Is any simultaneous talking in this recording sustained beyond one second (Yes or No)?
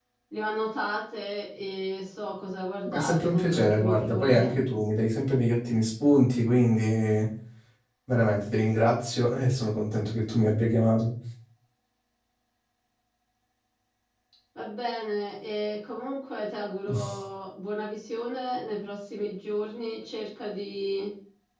Yes